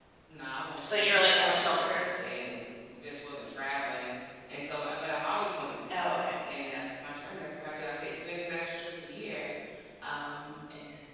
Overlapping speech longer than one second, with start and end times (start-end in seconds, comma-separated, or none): 0.8-2.0